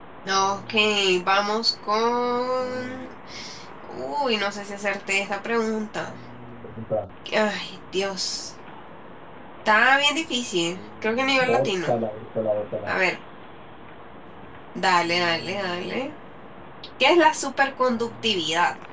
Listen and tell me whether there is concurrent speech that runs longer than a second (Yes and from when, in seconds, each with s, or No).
No